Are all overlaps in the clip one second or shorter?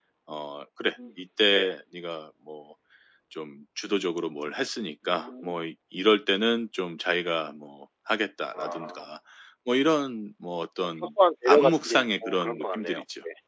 No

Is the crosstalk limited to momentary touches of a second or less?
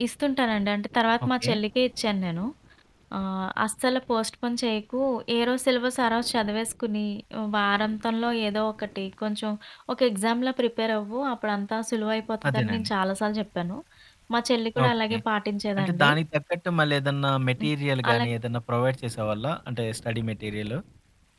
Yes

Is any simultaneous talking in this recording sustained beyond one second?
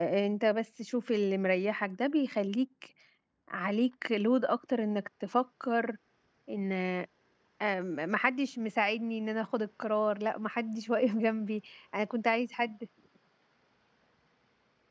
No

